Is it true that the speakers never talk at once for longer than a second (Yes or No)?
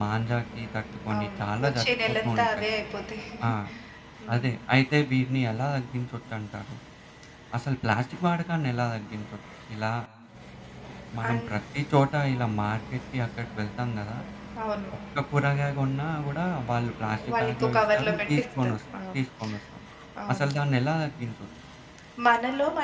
No